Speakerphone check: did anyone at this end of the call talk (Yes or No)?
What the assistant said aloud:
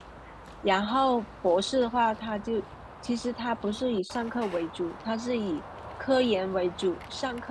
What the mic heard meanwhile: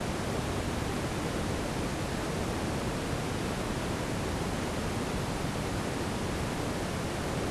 No